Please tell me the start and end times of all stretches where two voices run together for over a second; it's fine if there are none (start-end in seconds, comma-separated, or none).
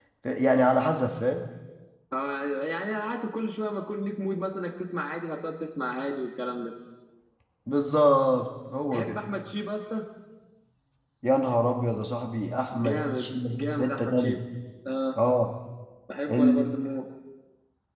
12.8-14.4